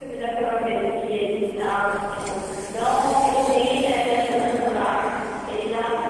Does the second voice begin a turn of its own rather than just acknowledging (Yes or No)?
No